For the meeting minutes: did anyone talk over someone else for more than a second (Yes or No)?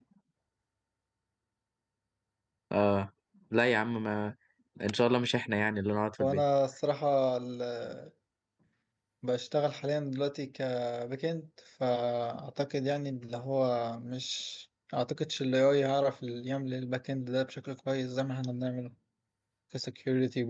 No